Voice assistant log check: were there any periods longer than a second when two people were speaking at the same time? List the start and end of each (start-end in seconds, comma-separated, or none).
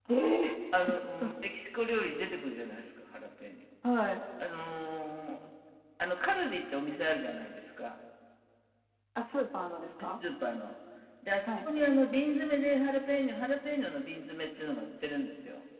none